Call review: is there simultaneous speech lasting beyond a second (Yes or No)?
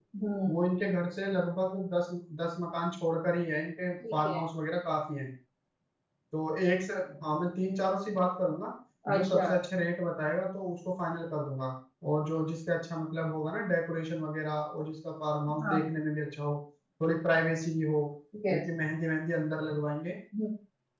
No